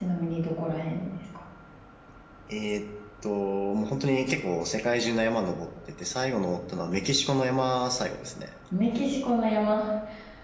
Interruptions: none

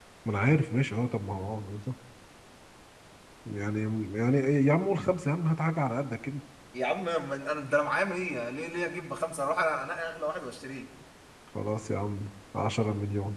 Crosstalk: none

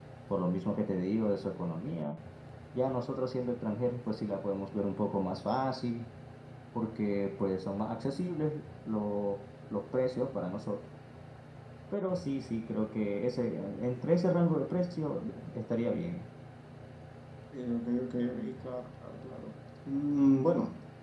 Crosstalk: none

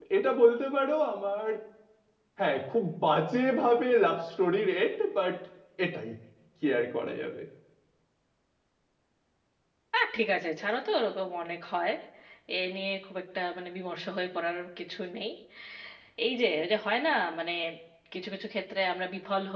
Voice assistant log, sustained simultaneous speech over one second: none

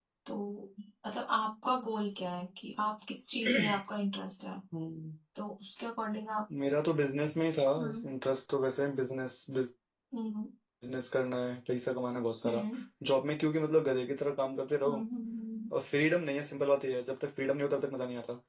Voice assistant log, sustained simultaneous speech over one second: none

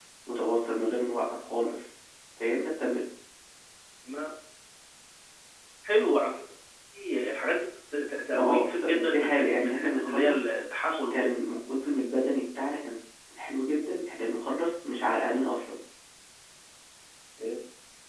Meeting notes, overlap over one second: present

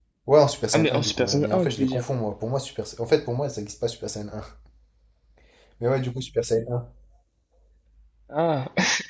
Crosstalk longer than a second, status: present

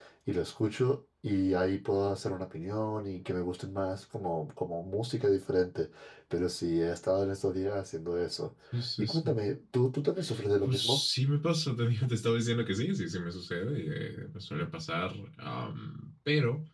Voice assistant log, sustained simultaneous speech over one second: none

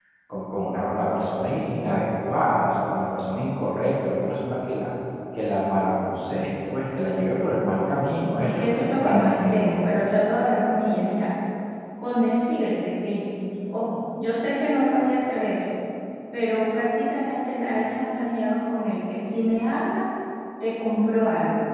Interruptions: present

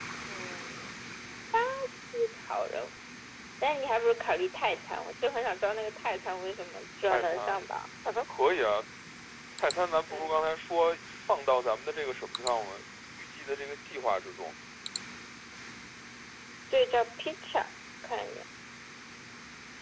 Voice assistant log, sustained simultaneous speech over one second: none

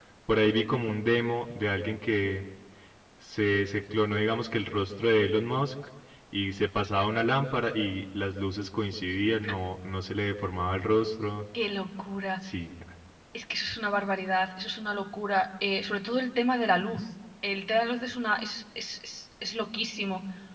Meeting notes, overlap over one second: none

